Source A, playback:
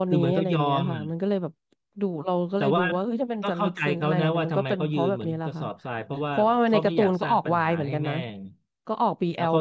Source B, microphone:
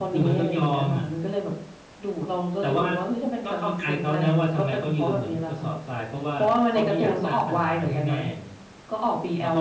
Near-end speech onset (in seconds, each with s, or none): none